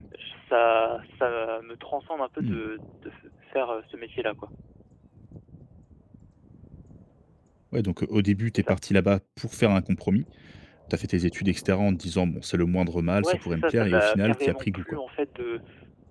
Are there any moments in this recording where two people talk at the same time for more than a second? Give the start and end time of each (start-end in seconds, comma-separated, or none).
13.2-15.0